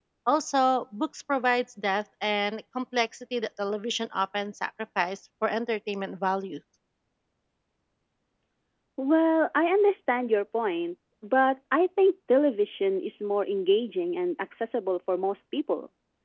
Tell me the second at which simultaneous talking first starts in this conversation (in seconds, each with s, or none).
none